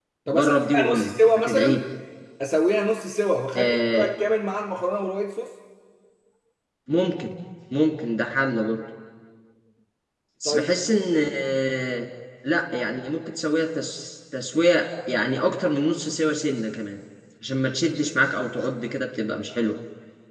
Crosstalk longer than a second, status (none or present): present